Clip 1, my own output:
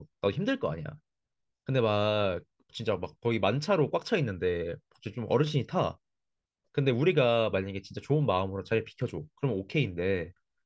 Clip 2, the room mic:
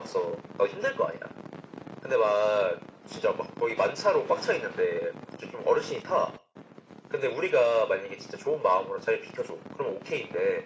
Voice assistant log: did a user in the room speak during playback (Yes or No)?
No